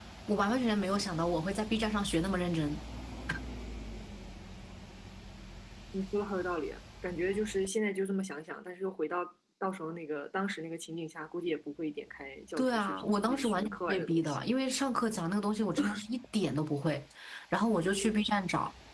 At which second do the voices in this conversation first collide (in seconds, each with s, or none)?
12.6 s